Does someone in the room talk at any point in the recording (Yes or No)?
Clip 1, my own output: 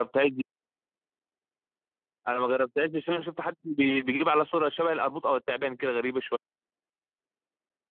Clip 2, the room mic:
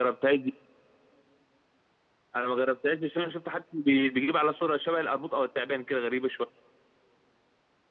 No